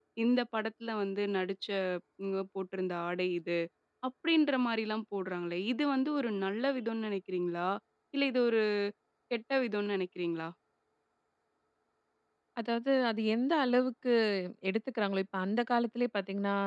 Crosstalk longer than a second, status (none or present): none